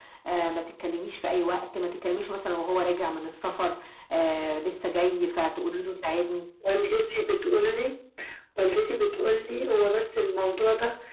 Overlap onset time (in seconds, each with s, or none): none